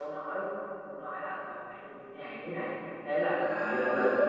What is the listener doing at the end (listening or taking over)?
taking over